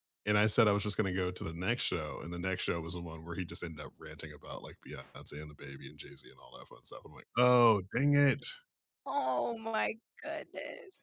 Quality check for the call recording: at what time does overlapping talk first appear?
none

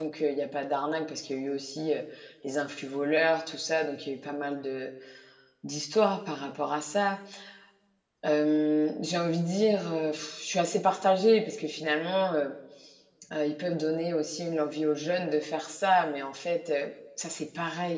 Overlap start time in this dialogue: none

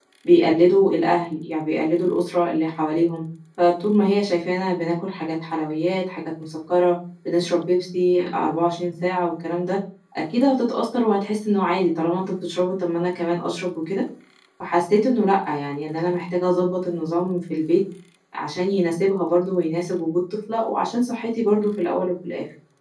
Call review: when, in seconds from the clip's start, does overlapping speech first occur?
none

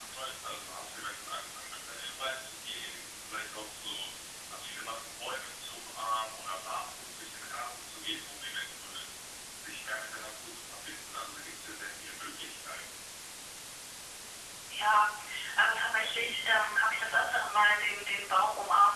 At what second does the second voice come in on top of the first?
none

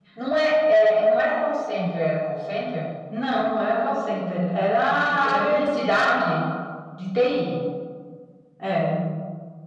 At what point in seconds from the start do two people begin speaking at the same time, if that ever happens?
4.9 s

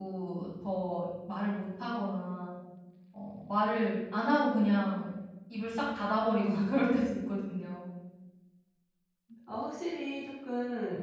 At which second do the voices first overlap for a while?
none

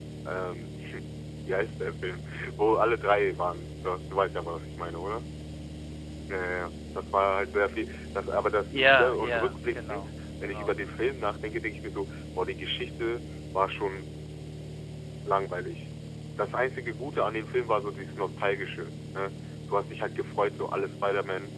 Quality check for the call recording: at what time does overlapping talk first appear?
8.7 s

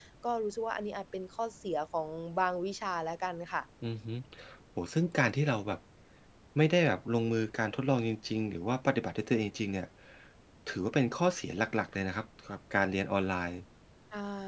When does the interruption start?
none

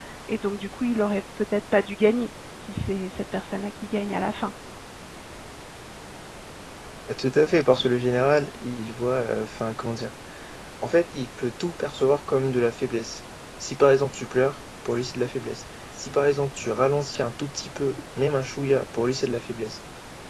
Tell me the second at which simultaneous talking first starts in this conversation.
none

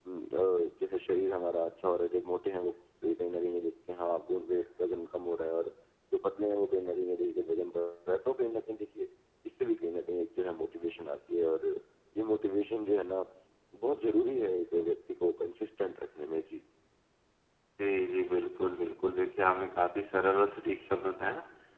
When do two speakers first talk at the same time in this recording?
none

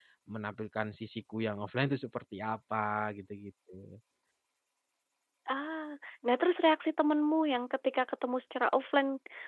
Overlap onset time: none

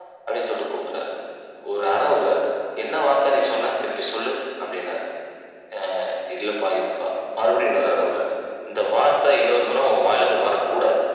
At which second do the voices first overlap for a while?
none

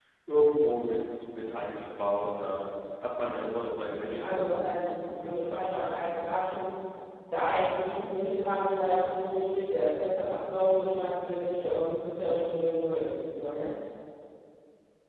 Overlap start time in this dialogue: 4.2 s

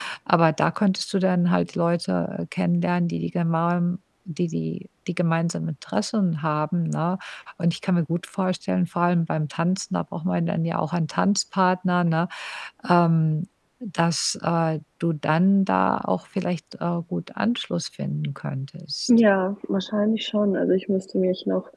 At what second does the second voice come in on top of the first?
none

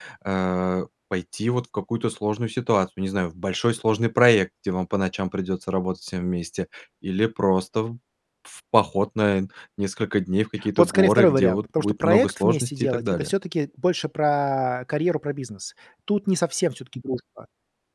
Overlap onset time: 10.8 s

